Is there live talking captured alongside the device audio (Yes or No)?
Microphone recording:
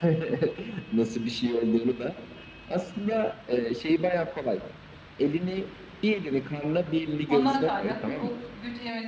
Yes